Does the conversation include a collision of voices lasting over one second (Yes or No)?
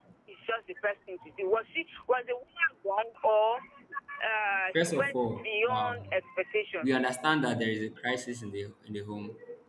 Yes